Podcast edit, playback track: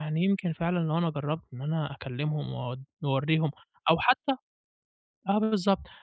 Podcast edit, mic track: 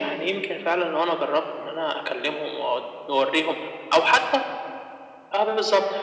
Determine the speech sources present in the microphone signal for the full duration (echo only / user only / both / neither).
echo only